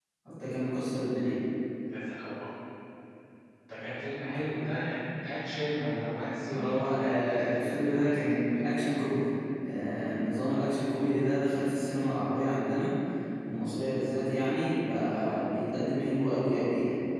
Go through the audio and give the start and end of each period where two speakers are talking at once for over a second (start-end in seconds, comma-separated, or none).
6.5-8.3